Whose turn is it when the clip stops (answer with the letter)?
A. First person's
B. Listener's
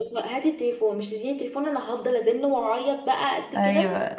B